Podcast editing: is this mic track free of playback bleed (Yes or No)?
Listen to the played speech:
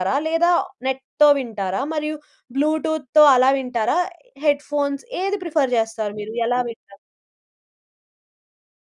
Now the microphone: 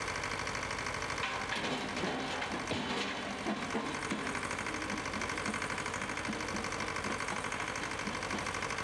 Yes